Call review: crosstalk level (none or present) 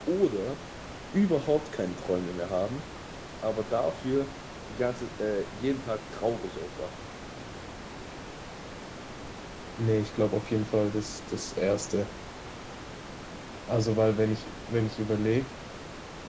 none